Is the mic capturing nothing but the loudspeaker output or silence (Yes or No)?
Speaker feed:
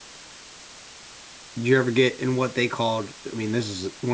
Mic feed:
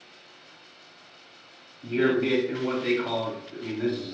No